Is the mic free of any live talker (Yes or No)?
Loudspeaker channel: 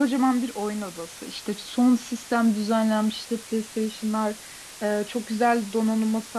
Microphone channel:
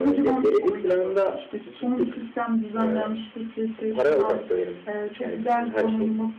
No